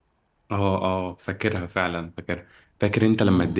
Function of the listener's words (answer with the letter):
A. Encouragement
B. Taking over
A